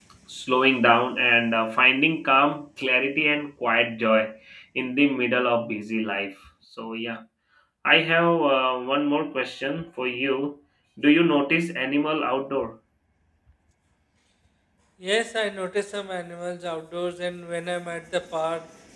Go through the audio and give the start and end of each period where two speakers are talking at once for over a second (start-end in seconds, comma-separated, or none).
none